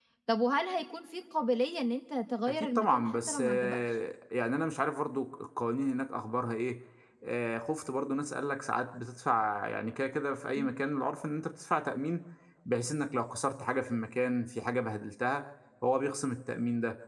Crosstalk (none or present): present